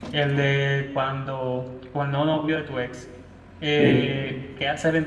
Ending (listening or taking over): listening